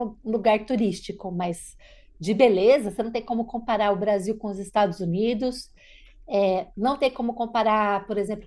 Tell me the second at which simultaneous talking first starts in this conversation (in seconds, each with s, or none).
none